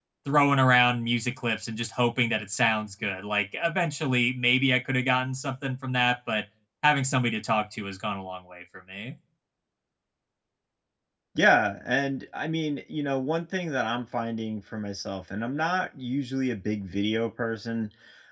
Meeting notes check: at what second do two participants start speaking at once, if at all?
none

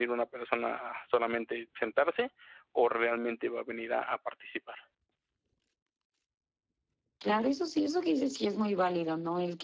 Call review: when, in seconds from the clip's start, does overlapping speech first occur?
none

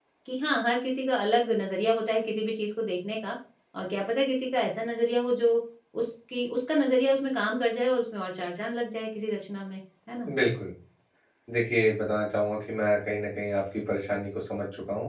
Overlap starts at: none

